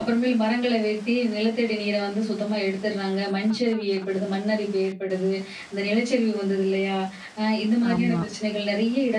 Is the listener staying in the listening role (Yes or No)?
Yes